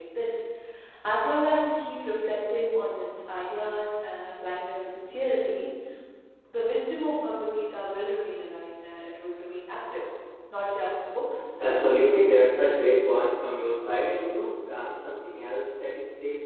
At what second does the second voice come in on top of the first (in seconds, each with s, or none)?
11.6 s